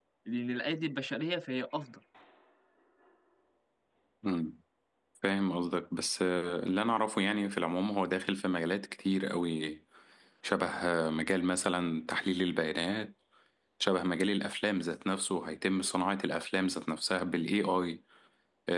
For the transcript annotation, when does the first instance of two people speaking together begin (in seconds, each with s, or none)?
none